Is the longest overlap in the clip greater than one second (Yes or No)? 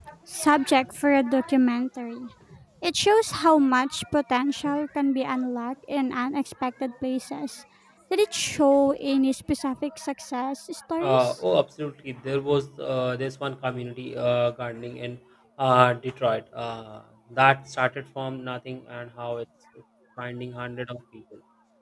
No